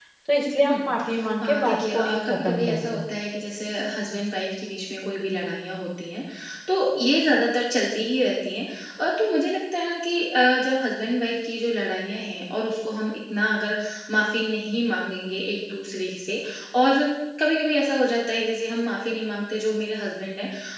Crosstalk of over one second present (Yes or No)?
Yes